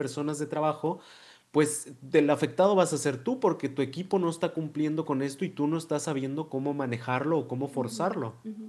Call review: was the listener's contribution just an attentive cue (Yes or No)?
No